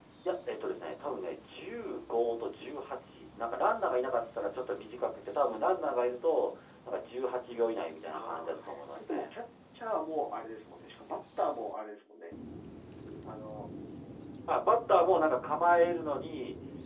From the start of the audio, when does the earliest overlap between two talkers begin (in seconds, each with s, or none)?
8.1 s